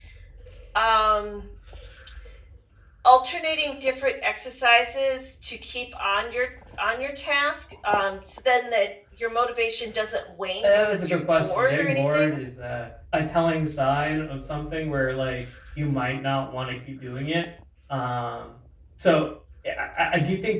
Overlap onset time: 11 s

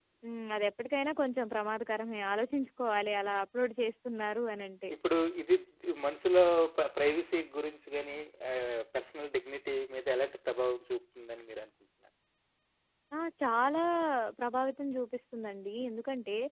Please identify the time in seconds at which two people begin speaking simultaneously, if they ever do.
none

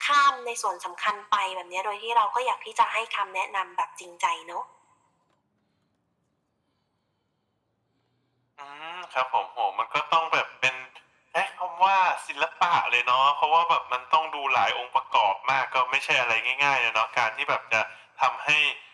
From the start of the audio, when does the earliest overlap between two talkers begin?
none

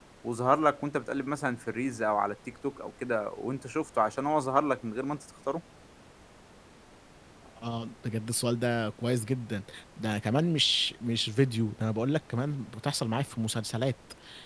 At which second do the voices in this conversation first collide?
none

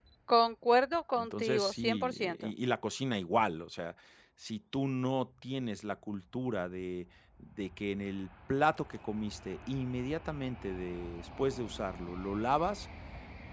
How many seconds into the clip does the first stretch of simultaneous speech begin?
1 s

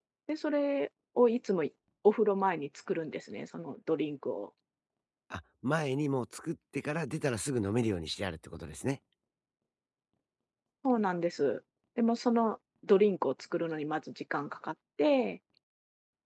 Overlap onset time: none

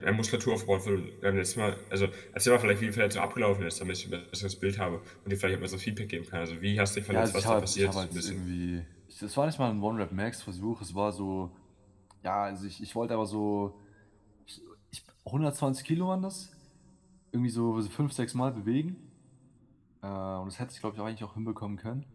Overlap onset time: 7 s

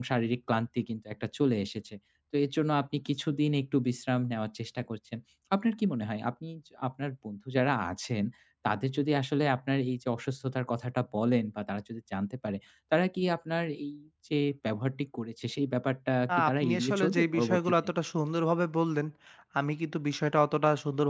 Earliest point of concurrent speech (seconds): 16 s

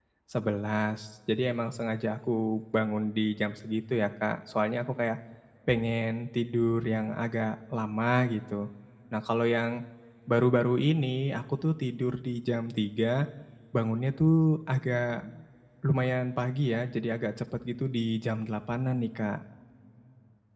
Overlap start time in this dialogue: none

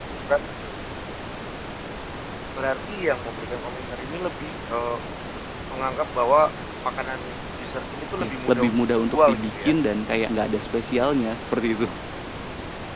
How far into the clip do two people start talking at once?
8 s

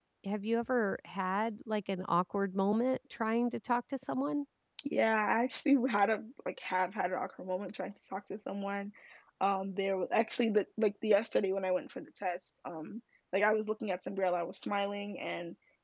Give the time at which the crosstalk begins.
none

